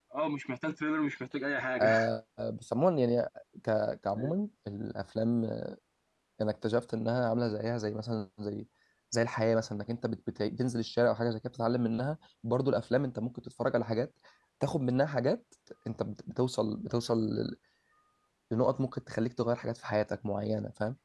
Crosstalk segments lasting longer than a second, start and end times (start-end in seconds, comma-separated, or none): none